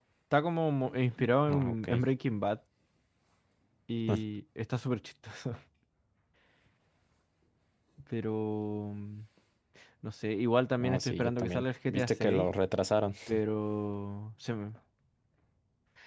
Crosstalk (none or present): present